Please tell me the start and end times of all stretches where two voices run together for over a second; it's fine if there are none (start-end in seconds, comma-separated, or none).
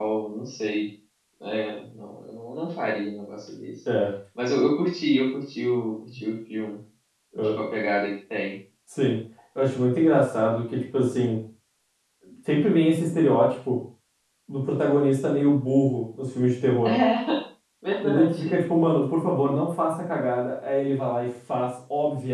none